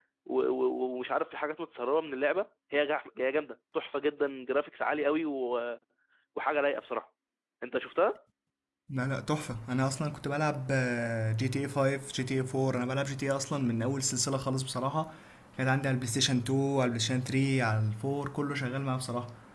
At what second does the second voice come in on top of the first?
none

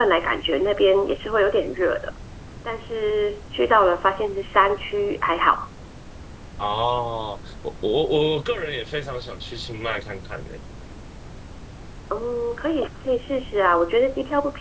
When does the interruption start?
none

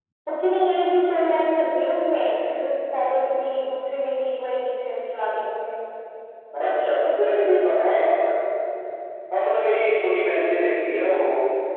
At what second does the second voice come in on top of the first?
6.6 s

